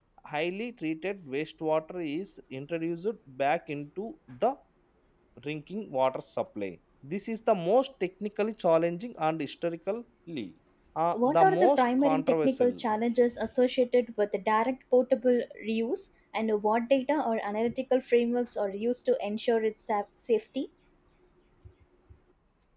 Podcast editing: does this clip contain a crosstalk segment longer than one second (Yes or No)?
Yes